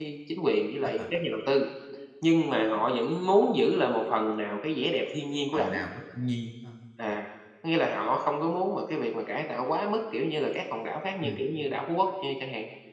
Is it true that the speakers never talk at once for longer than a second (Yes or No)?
Yes